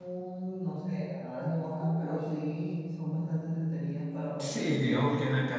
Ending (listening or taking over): taking over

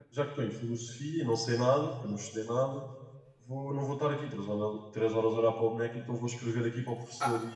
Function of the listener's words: taking over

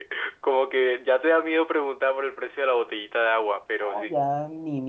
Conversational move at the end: taking over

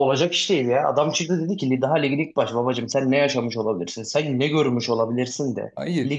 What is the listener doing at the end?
listening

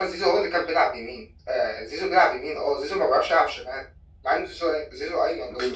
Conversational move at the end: taking over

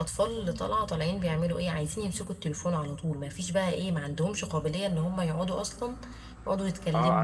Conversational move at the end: taking over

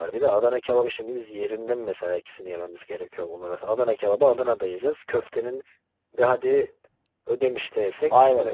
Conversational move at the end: taking over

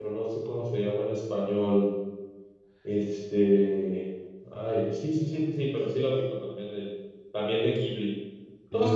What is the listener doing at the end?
listening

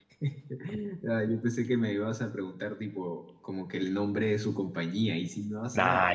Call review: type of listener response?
taking over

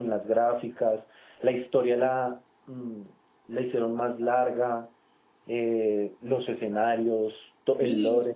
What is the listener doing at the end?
taking over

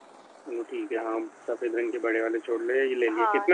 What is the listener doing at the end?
taking over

